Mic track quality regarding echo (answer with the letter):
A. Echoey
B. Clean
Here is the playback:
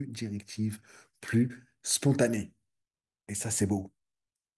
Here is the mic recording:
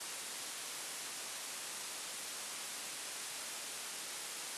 B